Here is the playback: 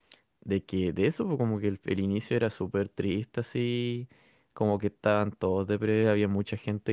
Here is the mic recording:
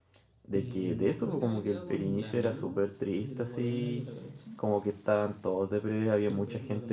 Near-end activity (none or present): present